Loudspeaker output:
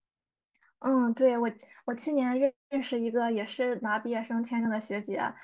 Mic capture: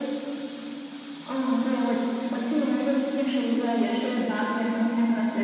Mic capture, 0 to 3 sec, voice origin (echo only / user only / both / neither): echo only